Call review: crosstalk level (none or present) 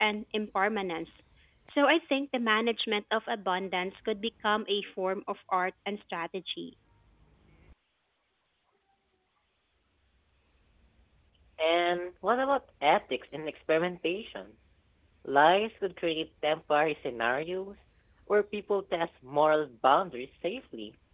none